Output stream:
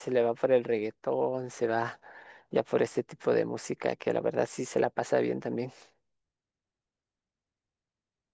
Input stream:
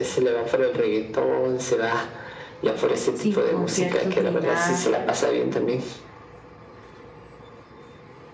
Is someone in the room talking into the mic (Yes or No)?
Yes